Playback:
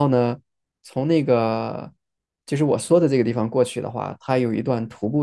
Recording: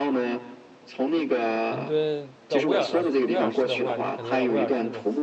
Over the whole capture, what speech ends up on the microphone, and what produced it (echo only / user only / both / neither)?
both